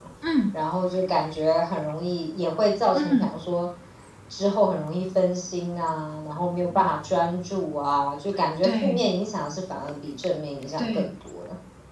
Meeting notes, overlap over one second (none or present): none